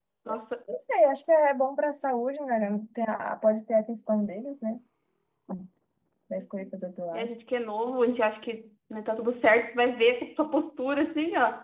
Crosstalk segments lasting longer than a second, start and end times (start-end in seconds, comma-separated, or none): none